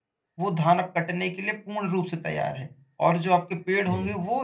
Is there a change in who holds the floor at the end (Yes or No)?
No